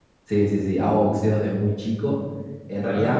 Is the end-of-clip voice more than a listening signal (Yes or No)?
No